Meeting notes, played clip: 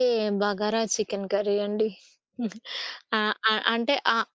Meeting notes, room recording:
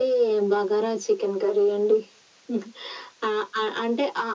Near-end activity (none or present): none